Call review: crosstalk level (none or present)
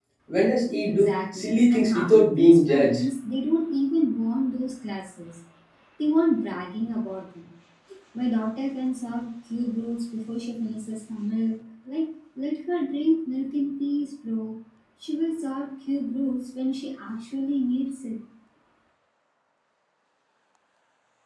present